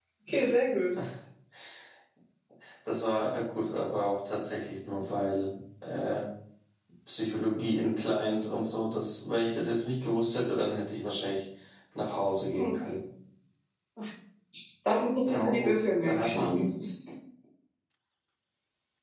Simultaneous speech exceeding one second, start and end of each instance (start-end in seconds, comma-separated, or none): 15.2-16.7